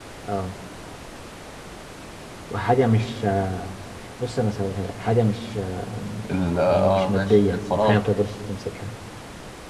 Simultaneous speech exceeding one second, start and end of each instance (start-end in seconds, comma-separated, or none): 6.7-8.0